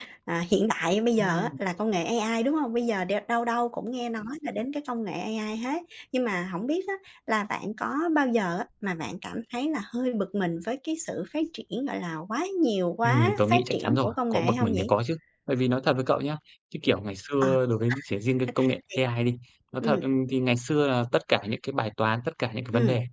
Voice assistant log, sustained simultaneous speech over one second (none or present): present